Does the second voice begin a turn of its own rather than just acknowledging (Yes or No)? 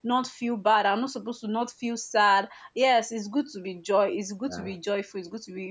No